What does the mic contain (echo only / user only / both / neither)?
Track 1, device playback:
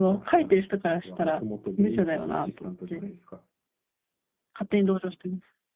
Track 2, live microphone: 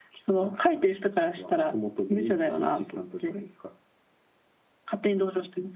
echo only